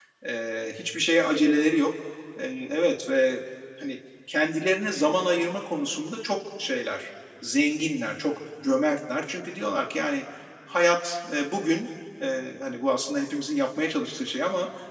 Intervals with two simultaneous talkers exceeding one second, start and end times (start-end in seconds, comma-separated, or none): none